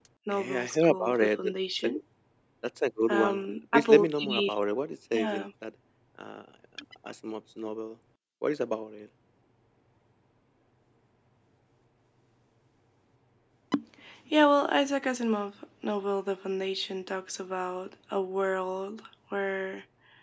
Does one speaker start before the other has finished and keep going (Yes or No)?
Yes